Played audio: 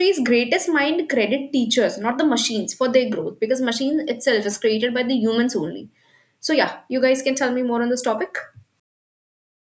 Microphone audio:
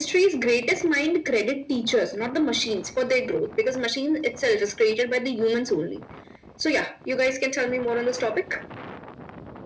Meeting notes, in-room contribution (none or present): none